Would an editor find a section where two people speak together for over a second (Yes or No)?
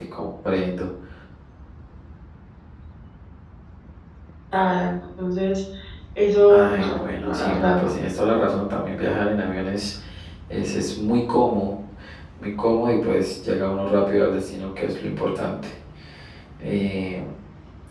Yes